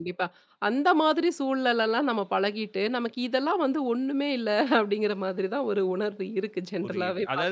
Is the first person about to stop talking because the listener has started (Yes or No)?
Yes